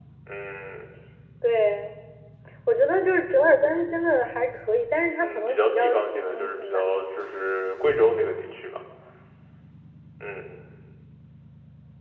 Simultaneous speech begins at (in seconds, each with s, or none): 5.2 s